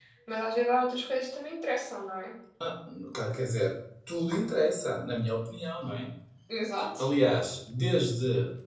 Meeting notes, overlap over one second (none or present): none